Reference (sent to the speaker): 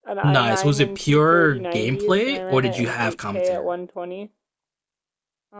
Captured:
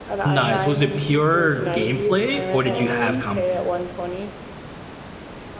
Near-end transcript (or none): Um,